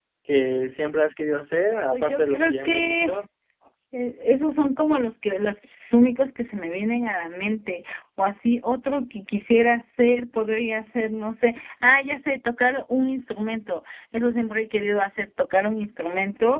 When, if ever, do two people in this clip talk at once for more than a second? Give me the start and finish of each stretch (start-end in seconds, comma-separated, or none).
1.9-3.2